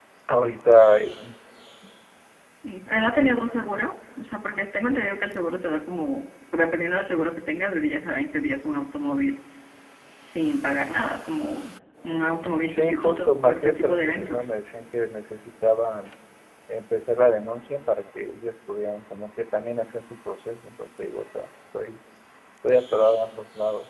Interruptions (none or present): present